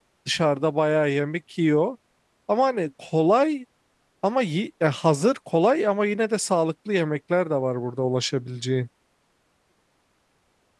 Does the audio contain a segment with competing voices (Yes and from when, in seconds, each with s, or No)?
No